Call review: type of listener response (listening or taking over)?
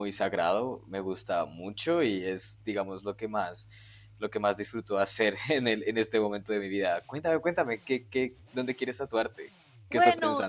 taking over